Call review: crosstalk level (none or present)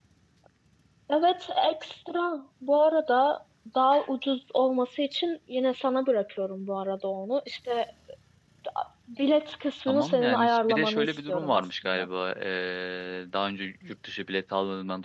present